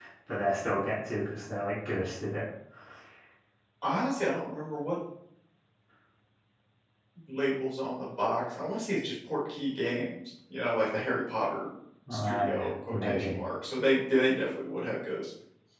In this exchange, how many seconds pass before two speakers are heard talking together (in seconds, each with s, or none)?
12.1 s